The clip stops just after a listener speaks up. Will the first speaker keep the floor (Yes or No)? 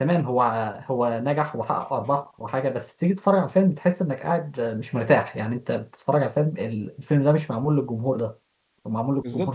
No